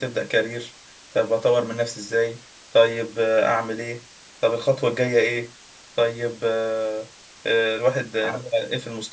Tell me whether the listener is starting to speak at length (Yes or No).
No